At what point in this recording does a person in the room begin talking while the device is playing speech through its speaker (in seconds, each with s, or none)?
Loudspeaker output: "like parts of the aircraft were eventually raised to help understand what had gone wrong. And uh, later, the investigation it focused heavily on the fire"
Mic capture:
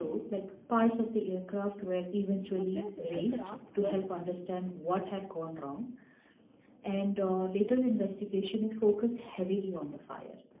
2.5 s